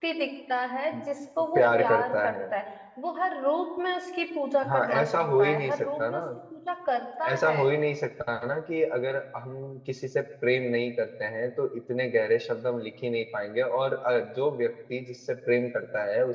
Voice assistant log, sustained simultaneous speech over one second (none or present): present